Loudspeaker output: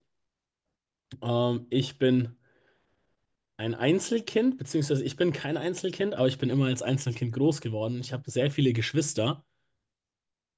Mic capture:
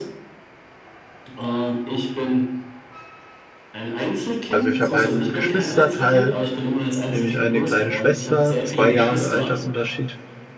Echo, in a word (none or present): present